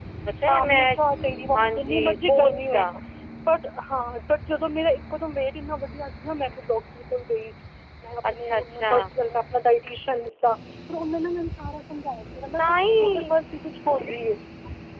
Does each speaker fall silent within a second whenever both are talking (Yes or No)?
No